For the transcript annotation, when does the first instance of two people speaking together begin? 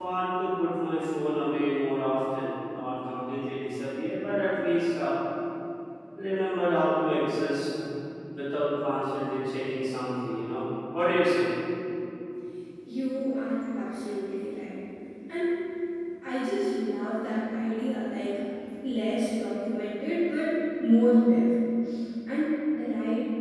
none

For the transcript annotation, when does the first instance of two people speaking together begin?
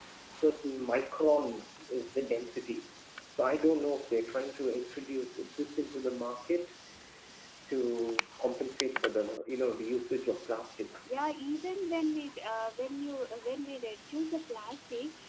none

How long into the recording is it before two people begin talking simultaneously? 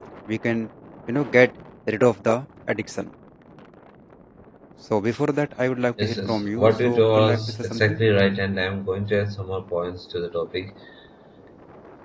6.0 s

